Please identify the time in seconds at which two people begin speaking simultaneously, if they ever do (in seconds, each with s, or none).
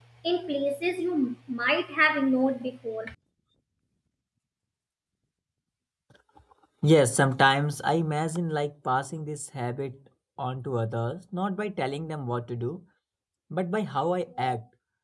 none